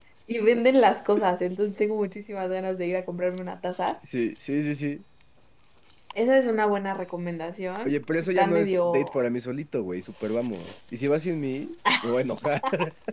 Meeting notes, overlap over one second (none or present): present